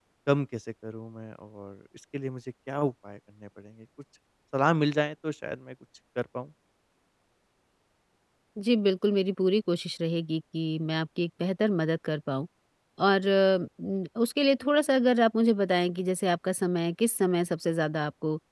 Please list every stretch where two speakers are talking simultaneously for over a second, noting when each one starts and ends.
none

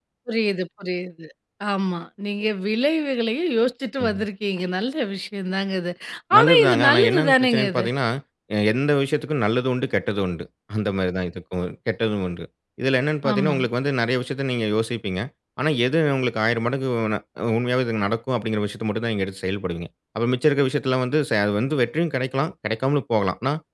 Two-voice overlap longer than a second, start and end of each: 6.4-7.9

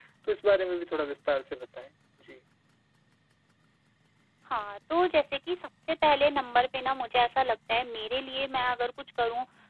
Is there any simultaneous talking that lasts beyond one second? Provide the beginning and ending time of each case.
none

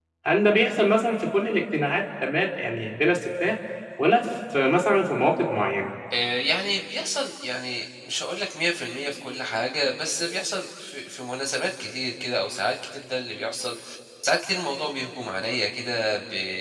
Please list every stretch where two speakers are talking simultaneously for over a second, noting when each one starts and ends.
none

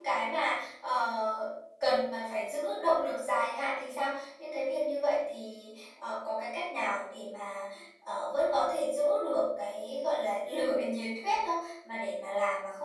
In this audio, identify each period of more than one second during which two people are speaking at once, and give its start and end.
none

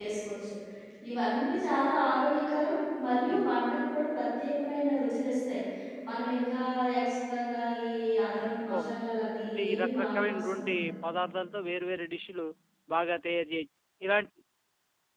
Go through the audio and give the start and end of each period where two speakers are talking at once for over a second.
9.5-10.9

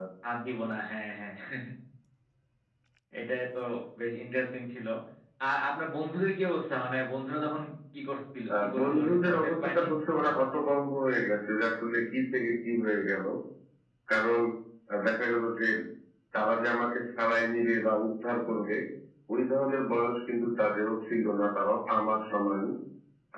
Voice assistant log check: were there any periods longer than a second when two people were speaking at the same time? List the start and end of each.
8.6-9.9

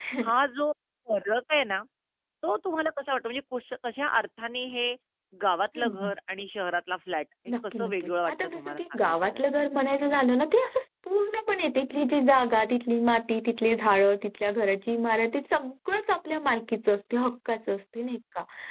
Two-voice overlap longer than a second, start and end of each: 7.7-9.5

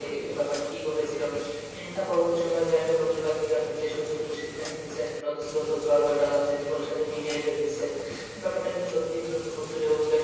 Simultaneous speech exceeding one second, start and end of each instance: none

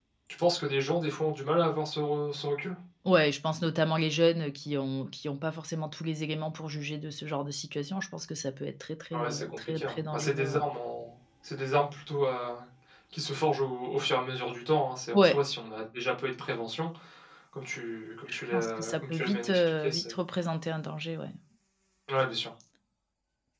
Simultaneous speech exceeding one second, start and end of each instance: 9.1-10.6, 18.3-20.1

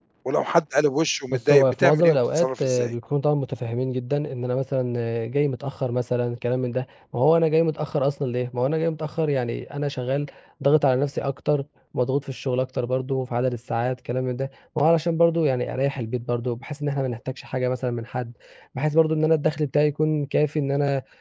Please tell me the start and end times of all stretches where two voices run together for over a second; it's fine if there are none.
1.3-2.9

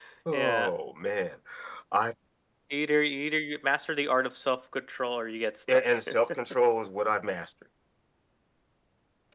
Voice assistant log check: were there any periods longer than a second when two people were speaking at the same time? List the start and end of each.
none

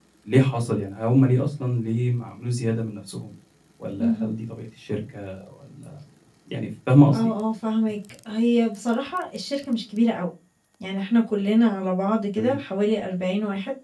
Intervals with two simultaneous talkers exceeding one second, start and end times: none

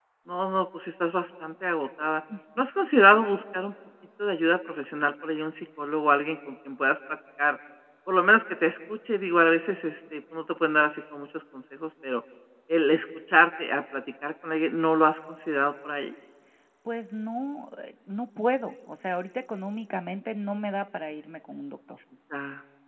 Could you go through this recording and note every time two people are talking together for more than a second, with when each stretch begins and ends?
none

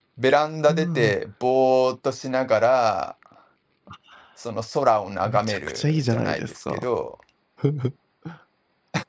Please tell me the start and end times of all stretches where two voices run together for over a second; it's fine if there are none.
5.2-6.8

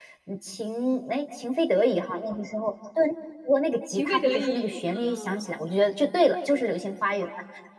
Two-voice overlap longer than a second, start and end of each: 3.9-5.5

